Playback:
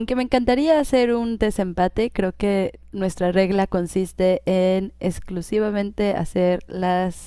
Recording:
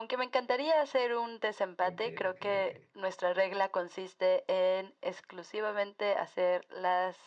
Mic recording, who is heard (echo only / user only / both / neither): both